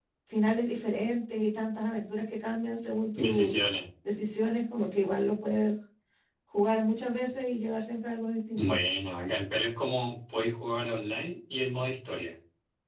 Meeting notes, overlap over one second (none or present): none